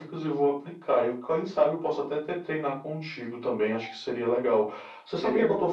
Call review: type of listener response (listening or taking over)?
listening